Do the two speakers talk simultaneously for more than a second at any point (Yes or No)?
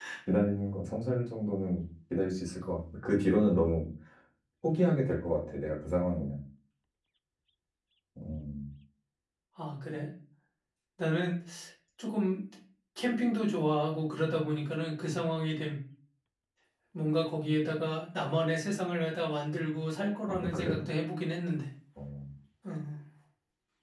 No